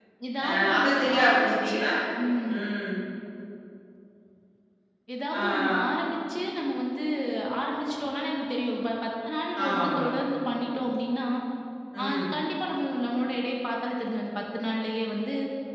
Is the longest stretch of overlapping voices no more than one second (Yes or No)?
No